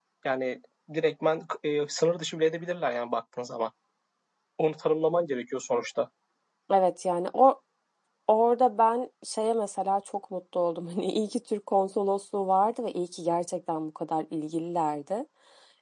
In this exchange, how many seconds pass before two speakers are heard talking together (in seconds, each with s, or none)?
none